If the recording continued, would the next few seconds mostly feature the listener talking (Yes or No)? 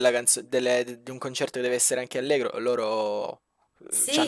Yes